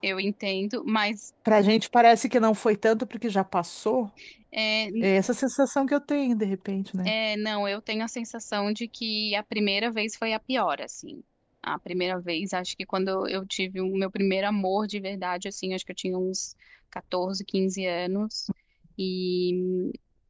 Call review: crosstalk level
none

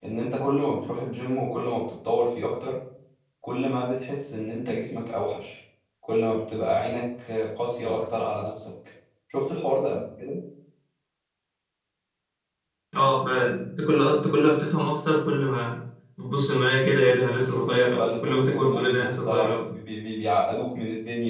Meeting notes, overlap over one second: present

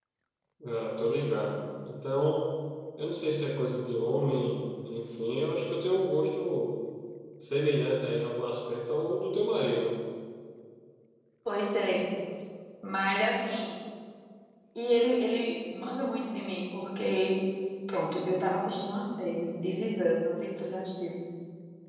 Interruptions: none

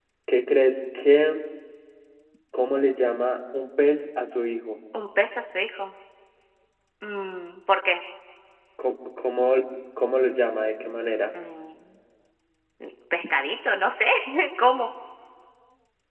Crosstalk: none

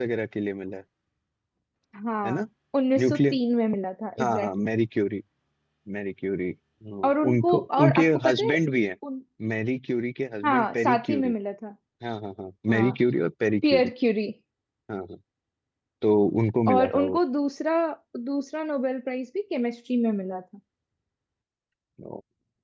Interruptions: present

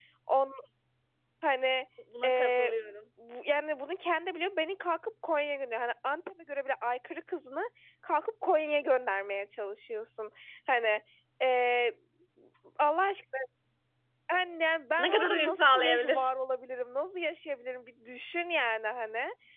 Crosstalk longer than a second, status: present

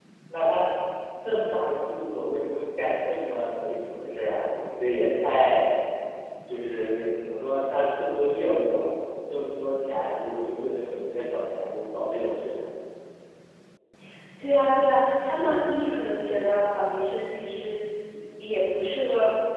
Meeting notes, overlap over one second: none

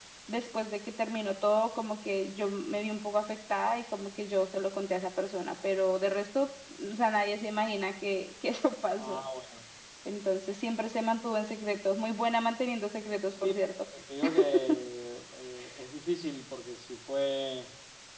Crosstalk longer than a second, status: none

